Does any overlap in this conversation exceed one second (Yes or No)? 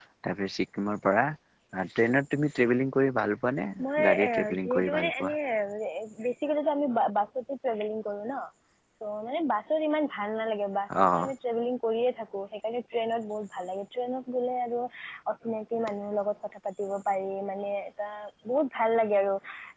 Yes